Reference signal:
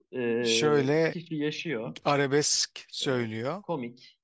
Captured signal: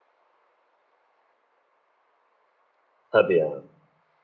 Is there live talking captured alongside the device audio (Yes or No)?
Yes